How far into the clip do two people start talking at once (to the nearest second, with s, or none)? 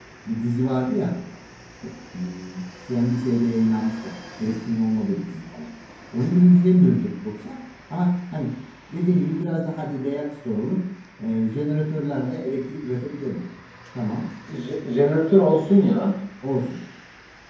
none